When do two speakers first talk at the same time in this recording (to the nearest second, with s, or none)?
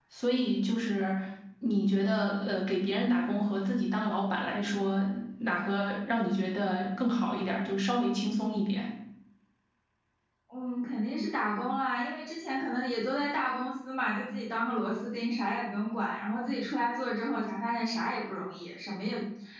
none